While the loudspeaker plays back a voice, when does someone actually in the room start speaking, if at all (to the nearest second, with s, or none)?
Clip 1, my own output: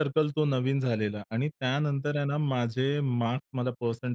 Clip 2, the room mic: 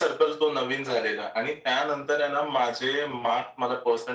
none